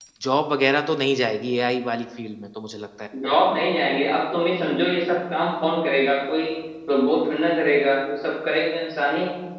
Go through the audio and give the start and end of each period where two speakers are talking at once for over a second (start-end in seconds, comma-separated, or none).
none